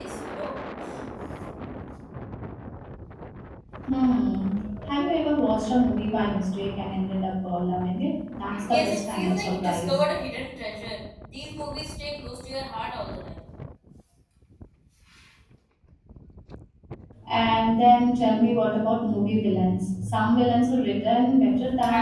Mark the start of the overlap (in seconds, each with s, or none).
8.7 s